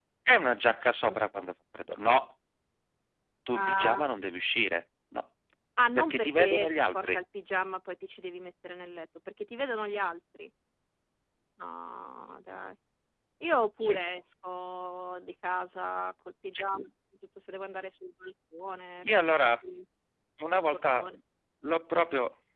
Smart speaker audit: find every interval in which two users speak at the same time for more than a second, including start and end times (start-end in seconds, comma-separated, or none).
6.0-7.2